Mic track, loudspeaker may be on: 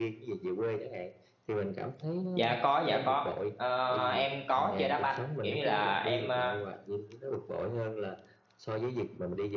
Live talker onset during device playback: 2.3 s

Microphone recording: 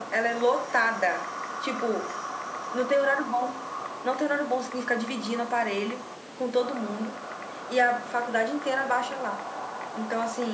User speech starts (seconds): none

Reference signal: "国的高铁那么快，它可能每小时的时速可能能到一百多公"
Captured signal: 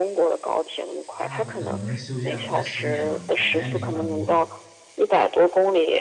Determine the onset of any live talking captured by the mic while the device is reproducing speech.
1.1 s

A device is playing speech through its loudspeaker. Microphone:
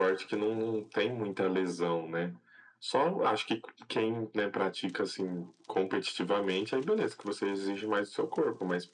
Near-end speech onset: none

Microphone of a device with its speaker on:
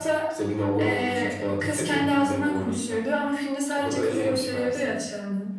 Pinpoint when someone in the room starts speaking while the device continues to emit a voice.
none

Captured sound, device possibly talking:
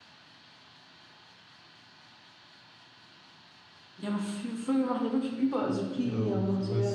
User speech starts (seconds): 6.0 s

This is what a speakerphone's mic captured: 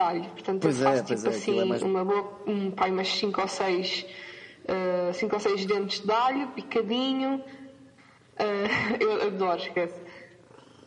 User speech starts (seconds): 0.6 s

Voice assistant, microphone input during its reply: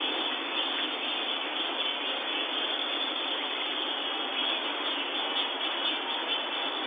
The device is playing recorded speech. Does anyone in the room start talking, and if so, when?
none

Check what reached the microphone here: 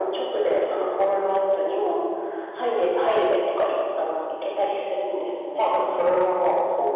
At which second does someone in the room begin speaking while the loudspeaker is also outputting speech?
none

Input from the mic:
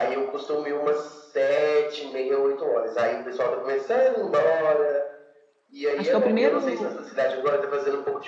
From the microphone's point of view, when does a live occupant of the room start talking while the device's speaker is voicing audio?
6.0 s

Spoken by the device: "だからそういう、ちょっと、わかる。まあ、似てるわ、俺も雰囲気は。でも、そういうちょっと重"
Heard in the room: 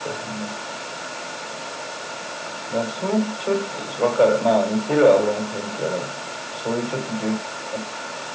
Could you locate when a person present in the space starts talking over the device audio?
none

